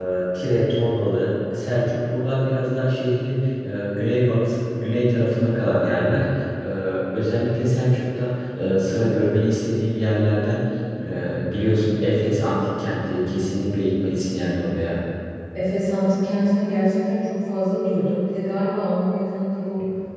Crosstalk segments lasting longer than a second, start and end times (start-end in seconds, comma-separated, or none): none